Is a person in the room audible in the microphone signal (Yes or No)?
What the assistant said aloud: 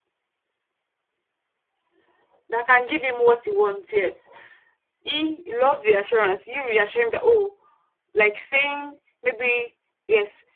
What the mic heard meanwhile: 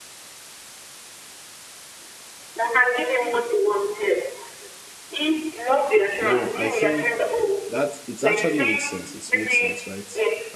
Yes